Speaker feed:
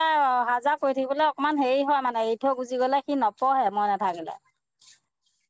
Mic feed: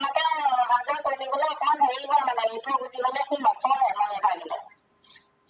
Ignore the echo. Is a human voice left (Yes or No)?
No